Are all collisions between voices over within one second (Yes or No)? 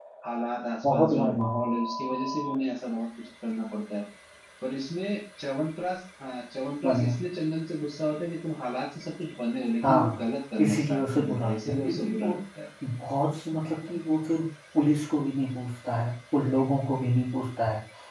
No